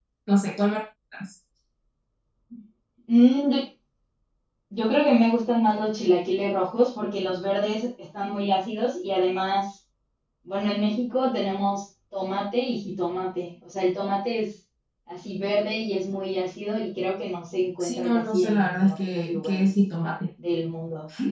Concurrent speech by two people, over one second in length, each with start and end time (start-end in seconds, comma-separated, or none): 17.8-19.7